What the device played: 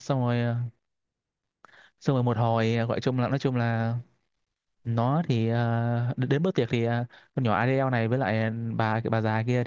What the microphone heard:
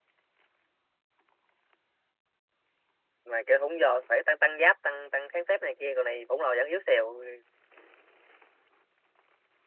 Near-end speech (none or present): present